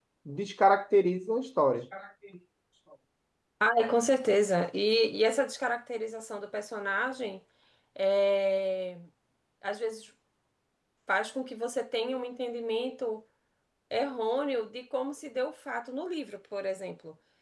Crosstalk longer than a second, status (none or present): none